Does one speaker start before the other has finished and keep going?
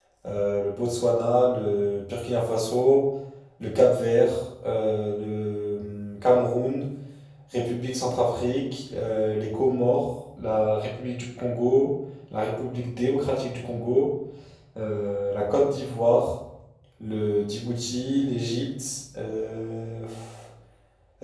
No

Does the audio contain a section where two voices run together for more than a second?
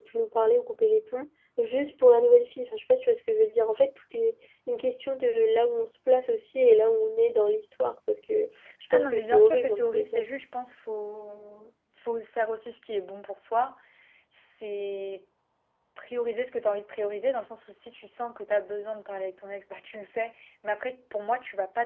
Yes, from 8.9 s

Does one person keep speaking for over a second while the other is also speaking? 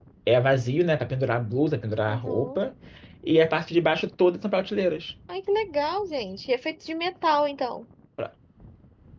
No

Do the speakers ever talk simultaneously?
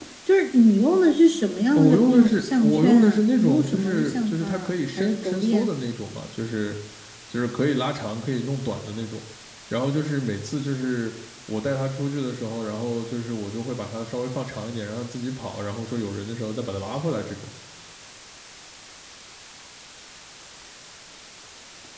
Yes, from 1.8 s

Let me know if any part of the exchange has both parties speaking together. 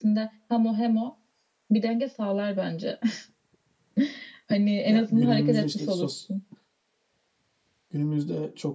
Yes, from 4.9 s

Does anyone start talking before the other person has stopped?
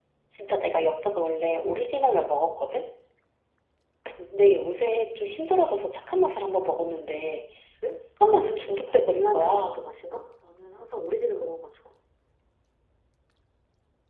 Yes, from 8.3 s

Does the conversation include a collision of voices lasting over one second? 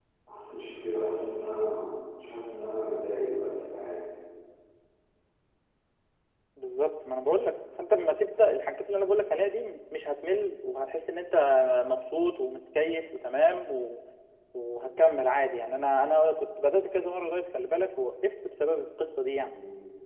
No

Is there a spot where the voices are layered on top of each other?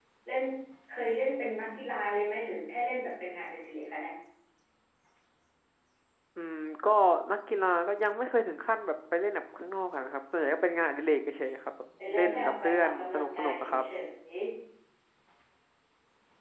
Yes, from 12.0 s

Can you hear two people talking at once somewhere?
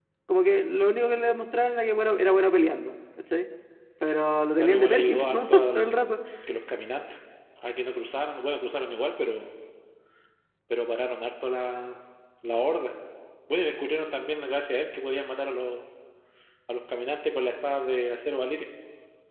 Yes, from 4.6 s

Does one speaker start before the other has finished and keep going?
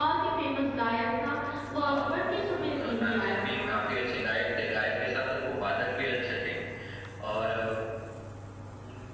Yes, from 1.8 s

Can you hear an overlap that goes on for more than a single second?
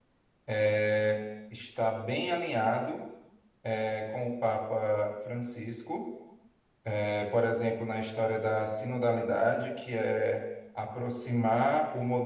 No

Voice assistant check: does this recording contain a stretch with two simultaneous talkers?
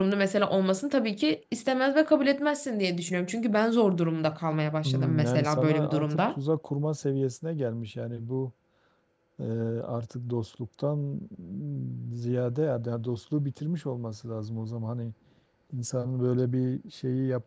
Yes, from 4.8 s

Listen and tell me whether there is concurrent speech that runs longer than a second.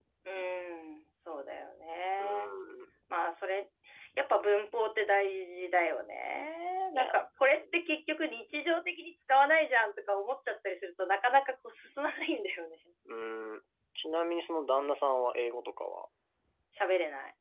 No

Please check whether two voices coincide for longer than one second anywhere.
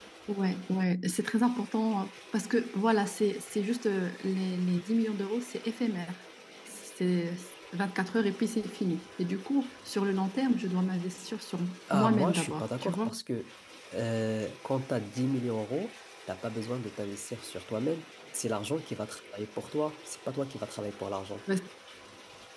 Yes, from 11.9 s

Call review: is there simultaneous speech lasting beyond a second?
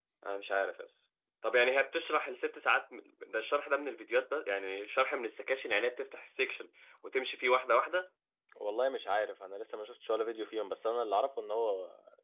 No

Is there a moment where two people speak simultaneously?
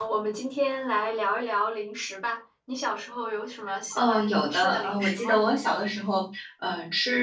Yes, from 3.9 s

